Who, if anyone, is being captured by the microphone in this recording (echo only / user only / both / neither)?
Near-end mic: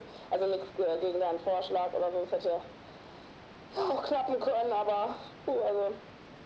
echo only